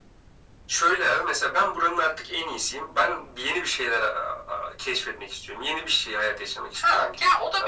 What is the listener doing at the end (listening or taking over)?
taking over